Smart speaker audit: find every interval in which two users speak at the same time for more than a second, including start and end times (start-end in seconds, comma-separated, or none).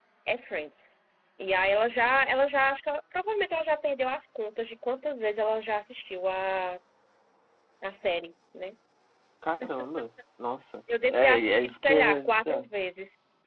11.1-12.7